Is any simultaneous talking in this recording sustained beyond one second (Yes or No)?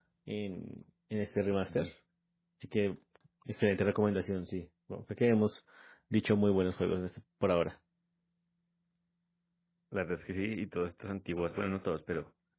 No